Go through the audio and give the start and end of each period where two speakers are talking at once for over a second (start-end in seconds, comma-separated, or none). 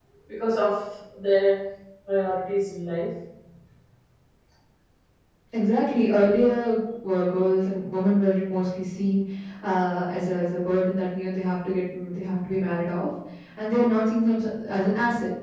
none